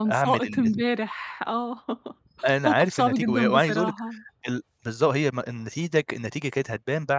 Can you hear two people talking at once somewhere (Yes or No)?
Yes